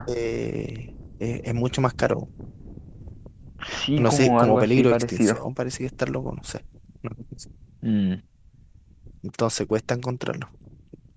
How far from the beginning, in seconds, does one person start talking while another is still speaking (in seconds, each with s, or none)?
4.0 s